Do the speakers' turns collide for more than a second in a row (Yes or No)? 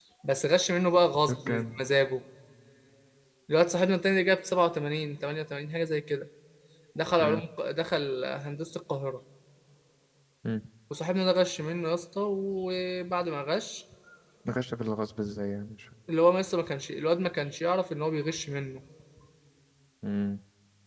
No